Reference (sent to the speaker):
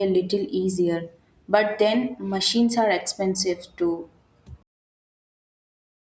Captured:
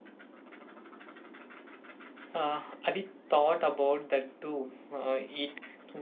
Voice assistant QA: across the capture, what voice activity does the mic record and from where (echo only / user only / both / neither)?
user only